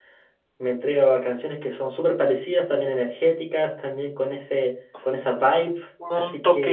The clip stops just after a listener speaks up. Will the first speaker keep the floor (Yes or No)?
No